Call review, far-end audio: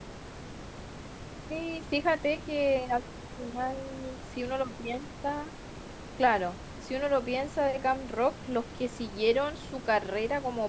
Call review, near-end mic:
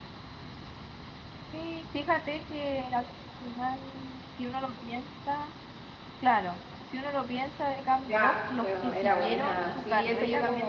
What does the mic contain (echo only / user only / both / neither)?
both